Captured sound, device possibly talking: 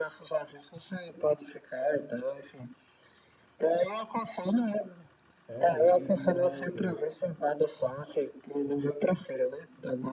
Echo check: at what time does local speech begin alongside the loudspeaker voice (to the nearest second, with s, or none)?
5 s